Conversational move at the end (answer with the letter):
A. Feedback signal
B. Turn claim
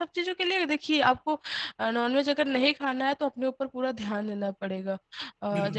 A